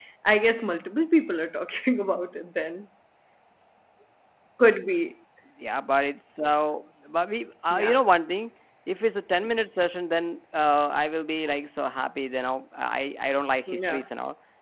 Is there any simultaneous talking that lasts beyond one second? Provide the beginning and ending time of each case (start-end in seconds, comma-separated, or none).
none